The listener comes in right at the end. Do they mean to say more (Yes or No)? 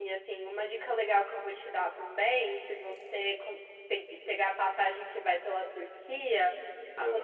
No